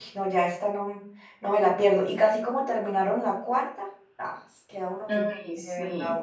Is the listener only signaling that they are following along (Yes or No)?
No